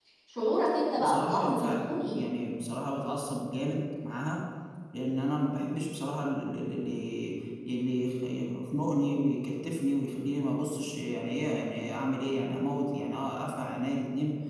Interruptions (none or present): present